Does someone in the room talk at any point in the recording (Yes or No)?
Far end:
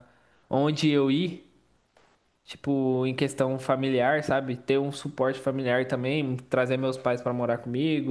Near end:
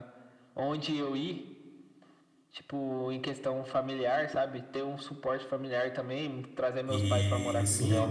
Yes